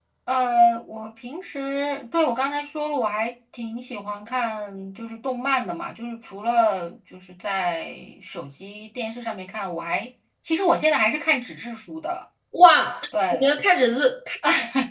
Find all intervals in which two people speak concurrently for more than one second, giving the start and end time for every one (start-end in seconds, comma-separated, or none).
none